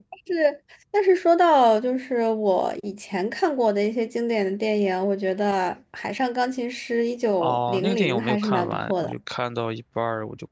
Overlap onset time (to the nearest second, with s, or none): 7 s